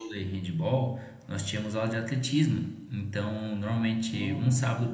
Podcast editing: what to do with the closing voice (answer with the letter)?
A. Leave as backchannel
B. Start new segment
A